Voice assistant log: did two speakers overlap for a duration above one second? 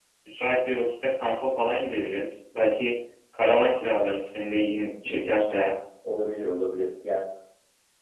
No

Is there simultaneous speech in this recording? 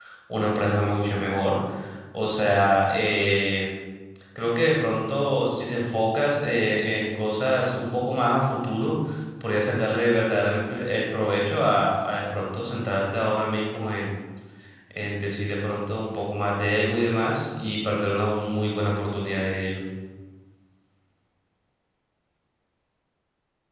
No

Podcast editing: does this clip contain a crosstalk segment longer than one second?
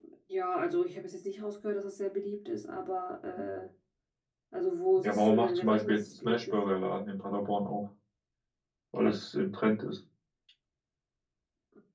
Yes, from 5.0 s

